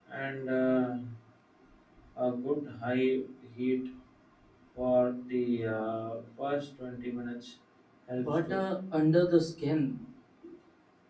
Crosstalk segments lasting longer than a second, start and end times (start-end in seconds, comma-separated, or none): none